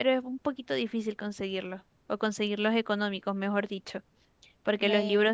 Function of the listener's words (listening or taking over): listening